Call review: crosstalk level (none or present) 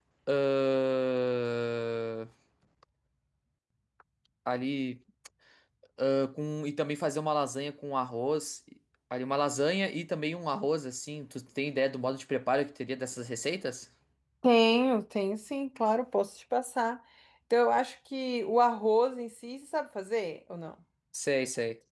none